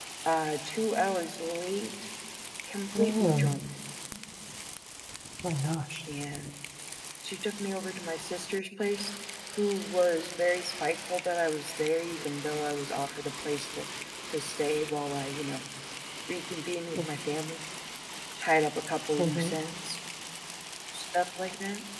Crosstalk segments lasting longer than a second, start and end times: none

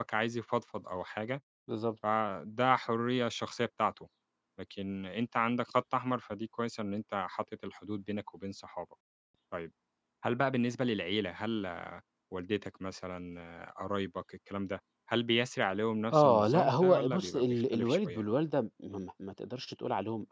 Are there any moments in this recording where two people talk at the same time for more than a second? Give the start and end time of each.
16.1-18.2

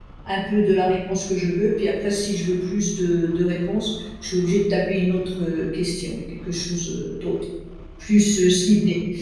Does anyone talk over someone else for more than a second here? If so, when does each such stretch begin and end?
none

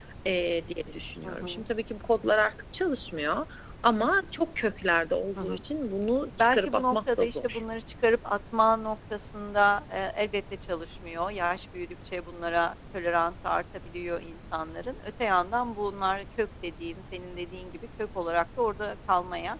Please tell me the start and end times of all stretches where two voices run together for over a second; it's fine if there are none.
6.4-7.6

